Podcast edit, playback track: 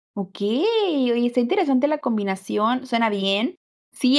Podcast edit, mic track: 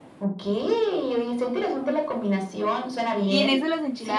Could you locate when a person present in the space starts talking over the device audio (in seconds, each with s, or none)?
3.3 s